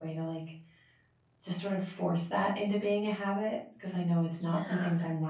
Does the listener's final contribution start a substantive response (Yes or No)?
No